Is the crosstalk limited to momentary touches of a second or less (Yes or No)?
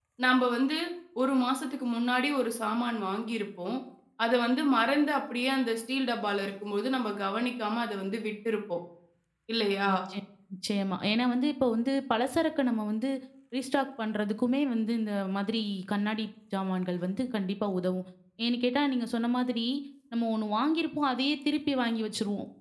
Yes